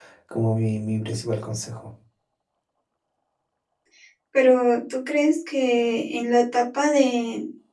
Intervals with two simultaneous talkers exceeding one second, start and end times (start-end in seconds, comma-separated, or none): none